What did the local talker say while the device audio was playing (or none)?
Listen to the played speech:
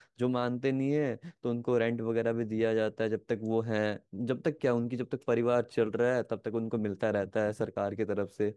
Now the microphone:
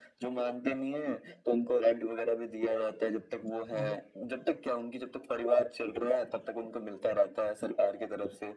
हाँ